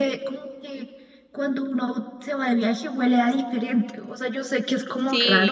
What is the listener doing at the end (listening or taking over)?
listening